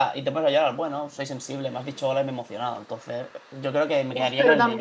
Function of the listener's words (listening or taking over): taking over